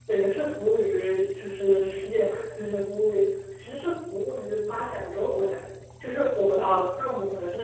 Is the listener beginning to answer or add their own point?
No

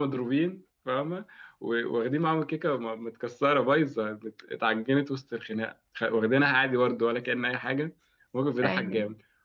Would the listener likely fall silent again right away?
Yes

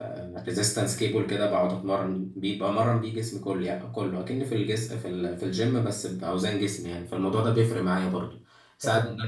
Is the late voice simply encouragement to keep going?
Yes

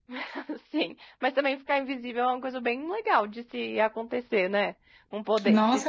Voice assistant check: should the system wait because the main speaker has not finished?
No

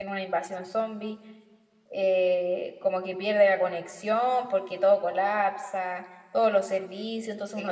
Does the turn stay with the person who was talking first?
No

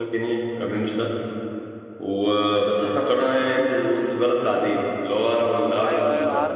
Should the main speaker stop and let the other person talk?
Yes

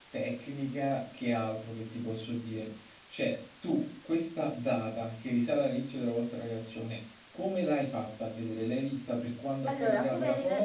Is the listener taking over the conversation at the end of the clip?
Yes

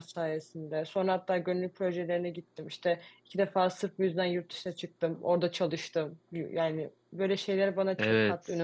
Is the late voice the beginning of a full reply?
Yes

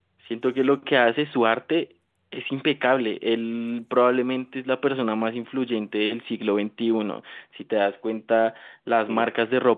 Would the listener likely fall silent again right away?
Yes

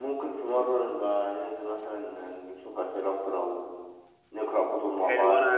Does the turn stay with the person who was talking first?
No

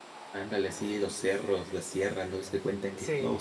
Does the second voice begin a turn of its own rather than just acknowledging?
No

